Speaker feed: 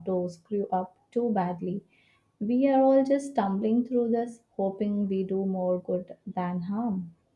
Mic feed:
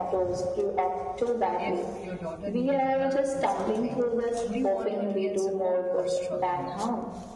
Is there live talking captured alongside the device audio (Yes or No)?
Yes